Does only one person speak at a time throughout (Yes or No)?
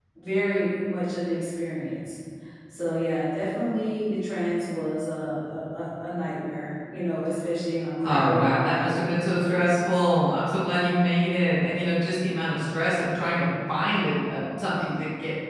No